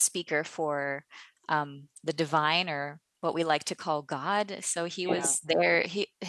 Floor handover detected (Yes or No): No